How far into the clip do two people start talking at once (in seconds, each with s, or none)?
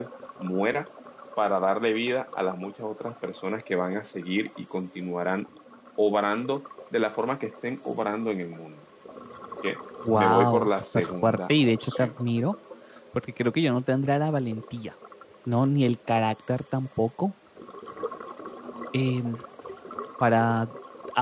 10.2 s